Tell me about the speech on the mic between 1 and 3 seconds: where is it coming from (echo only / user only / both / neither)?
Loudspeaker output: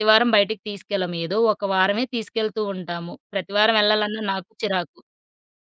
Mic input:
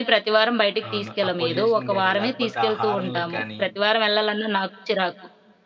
both